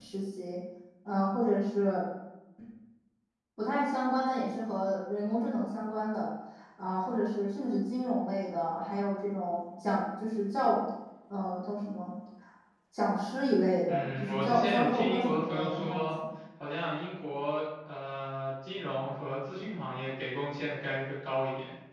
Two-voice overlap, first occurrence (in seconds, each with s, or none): 13.9 s